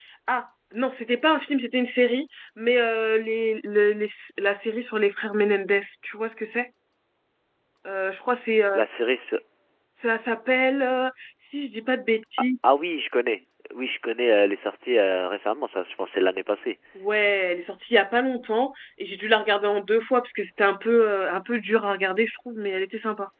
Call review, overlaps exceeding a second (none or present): none